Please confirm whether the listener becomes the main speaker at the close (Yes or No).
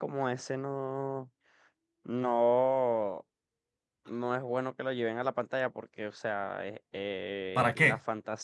No